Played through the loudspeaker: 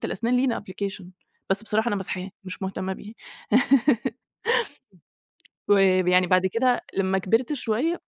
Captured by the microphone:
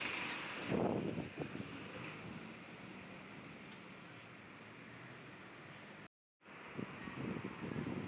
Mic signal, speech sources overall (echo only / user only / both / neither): neither